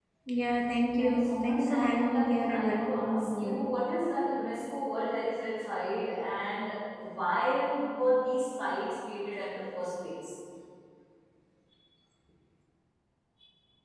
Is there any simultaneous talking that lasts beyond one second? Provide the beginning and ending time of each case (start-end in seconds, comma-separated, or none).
1.0-3.6